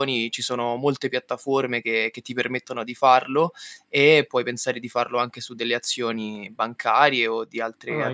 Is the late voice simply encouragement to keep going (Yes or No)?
No